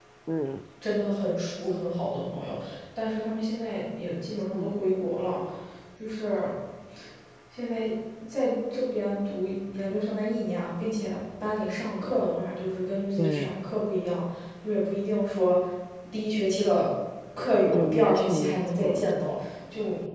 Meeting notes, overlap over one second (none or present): present